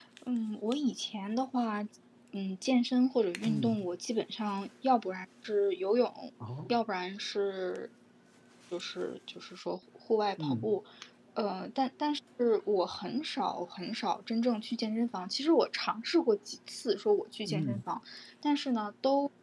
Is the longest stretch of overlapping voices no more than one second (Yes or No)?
Yes